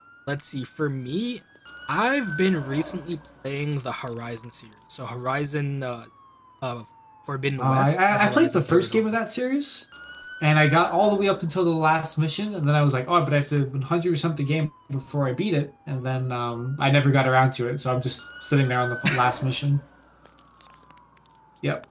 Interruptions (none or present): present